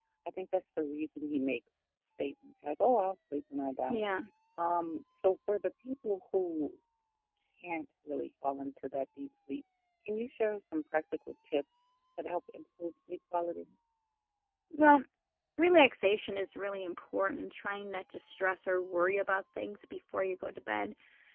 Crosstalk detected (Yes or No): No